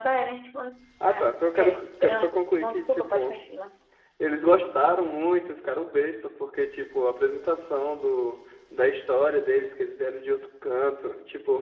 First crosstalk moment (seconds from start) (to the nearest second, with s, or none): 1 s